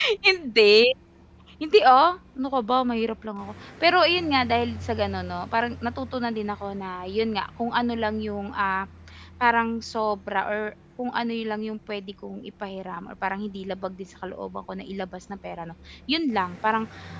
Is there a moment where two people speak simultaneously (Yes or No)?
No